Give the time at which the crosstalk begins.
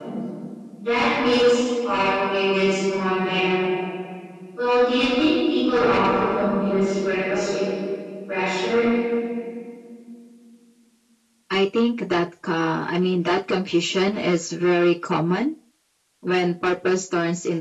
none

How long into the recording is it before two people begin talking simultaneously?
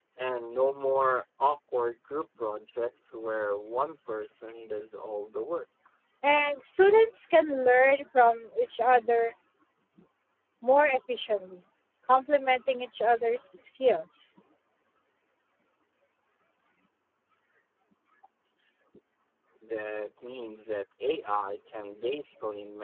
none

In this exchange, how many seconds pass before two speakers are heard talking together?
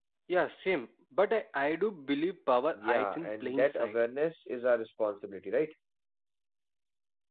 3 s

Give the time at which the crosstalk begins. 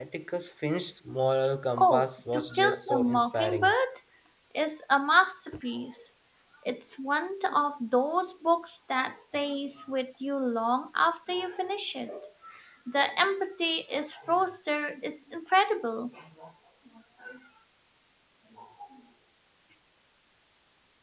2 s

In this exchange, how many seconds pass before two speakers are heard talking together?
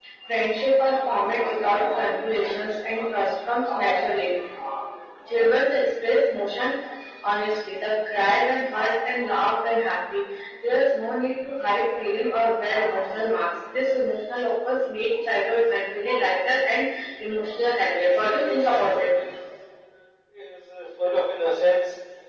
18 s

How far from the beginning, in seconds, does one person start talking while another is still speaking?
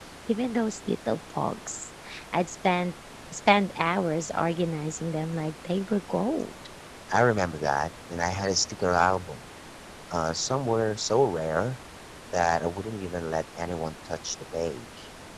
none

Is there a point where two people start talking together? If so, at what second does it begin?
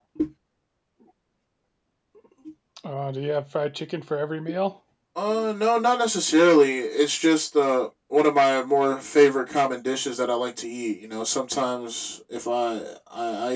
none

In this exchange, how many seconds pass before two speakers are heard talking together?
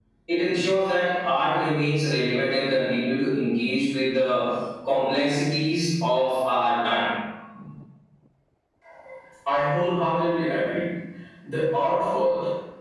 none

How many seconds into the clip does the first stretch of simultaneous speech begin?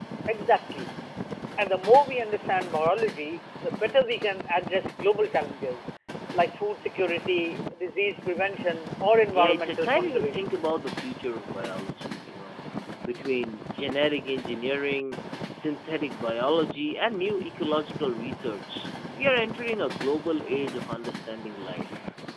9 s

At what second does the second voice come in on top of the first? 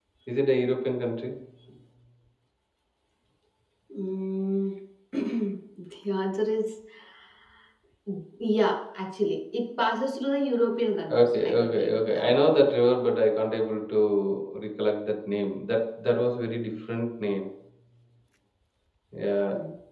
11 s

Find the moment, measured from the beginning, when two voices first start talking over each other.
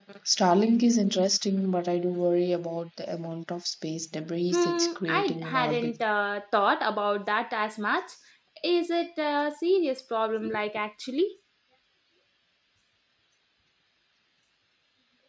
5 s

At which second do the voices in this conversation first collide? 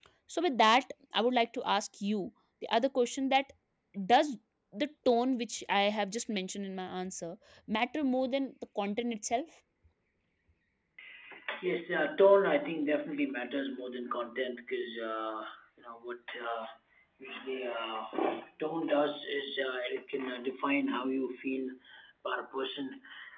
none

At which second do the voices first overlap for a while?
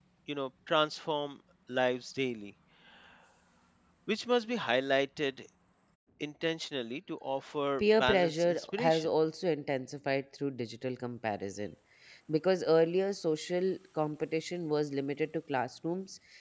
8 s

